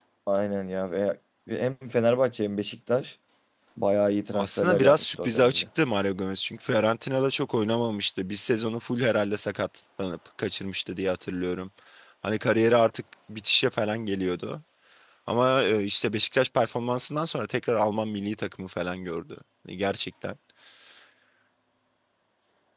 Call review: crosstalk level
present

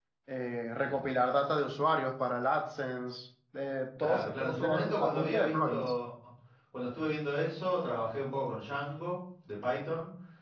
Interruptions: present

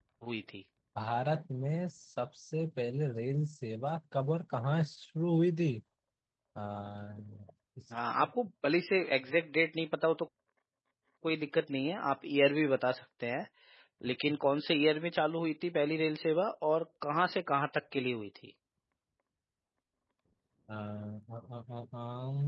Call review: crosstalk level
none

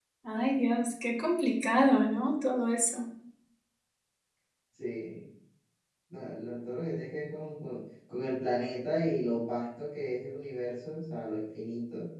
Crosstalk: none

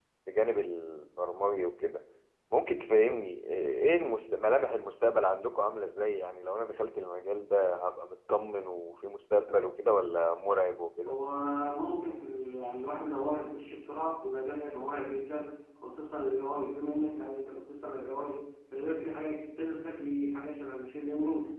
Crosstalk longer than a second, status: none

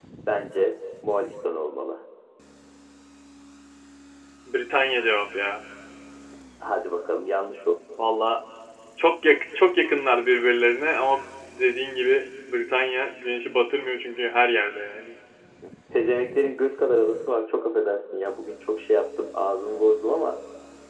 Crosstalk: none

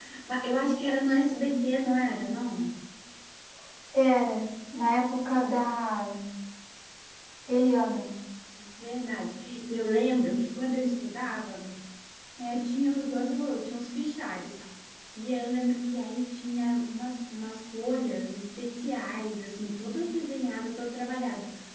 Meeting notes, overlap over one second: none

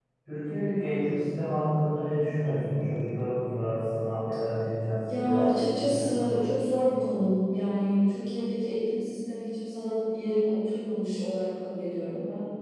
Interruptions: present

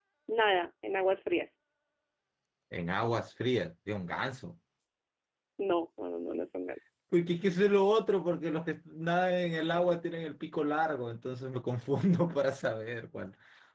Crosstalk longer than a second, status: none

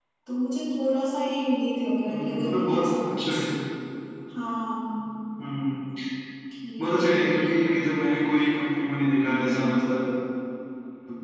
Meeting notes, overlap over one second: present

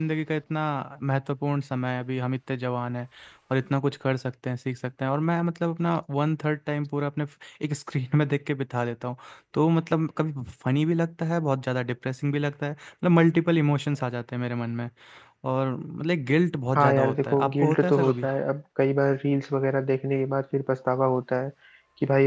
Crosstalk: present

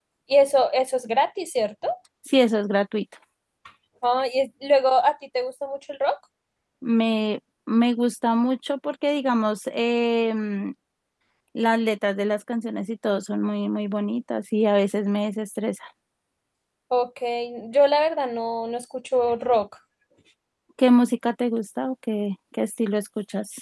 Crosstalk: none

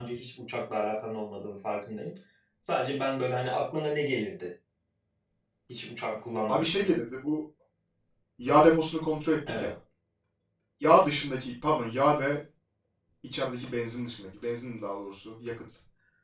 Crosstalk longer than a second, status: none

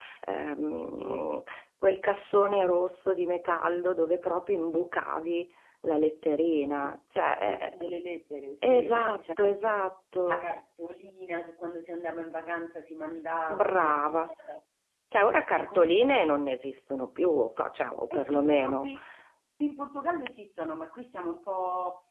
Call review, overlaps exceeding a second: present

